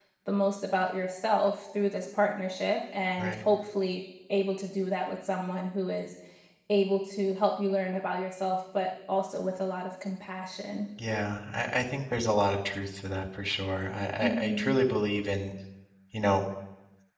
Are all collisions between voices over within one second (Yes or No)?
Yes